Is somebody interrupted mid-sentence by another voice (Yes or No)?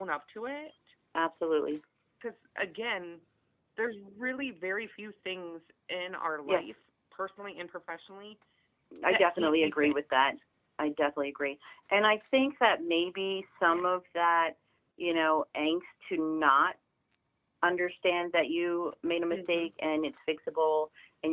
Yes